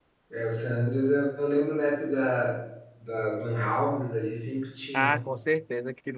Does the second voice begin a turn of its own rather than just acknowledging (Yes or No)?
Yes